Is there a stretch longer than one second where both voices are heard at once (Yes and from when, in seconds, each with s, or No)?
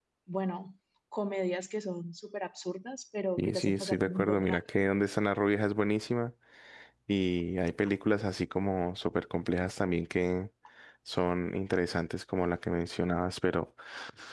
Yes, from 3.4 s